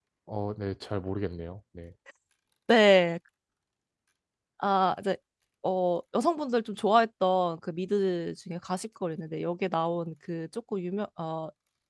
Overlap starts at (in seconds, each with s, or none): none